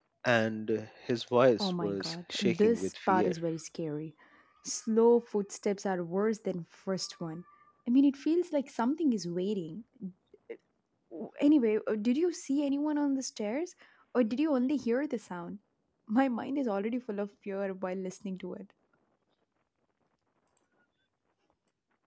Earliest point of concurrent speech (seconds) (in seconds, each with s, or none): 1.6 s